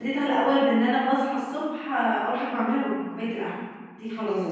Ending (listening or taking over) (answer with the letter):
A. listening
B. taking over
B